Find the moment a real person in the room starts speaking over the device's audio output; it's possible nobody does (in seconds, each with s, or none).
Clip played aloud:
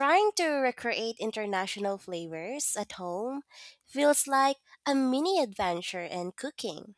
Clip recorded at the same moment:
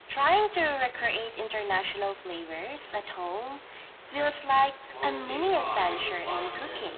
4.9 s